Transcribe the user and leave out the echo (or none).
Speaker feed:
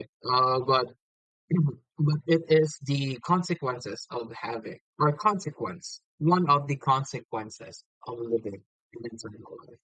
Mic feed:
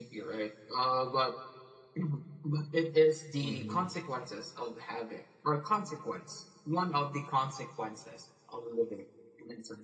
Mm-hmm.